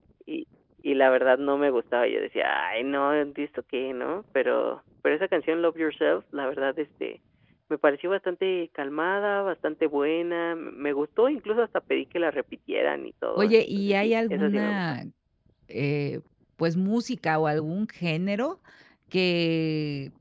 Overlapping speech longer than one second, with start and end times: 13.4-14.8

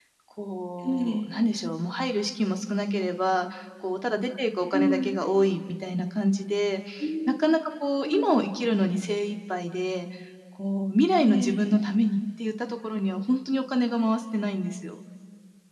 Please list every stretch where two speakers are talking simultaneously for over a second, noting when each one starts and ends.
none

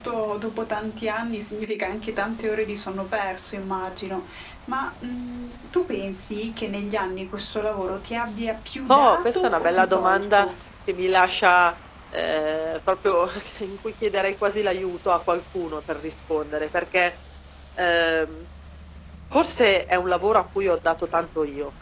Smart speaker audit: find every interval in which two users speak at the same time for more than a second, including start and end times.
8.9-10.5

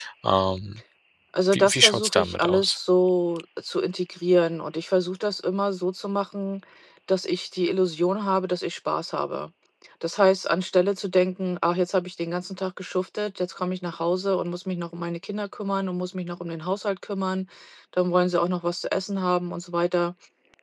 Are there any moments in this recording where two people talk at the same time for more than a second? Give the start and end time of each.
1.5-2.8

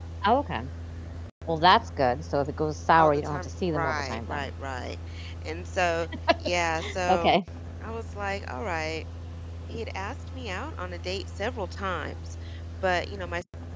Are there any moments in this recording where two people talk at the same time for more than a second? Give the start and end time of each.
3.0-4.5

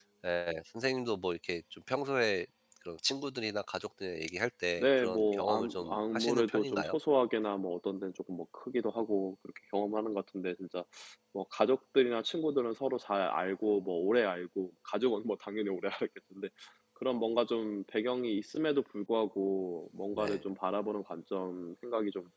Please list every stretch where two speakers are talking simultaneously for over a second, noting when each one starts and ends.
4.8-7.0

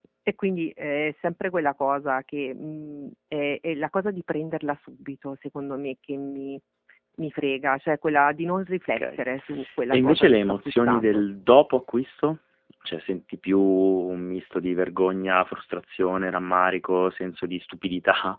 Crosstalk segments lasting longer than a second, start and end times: 9.9-11.2

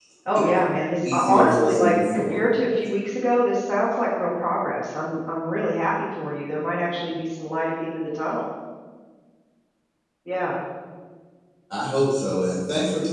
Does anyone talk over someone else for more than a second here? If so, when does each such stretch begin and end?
1.1-2.5

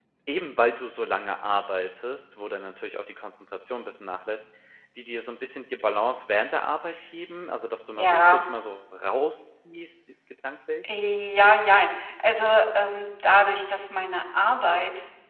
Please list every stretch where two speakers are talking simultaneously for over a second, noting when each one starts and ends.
none

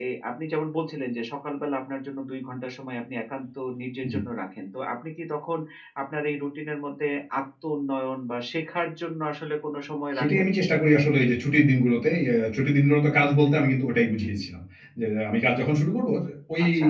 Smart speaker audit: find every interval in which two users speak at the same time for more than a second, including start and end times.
none

